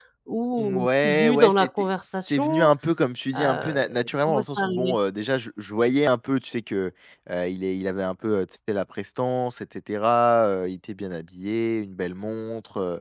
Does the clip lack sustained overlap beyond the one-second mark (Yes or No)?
No